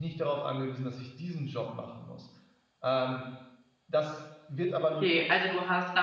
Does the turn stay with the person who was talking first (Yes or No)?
No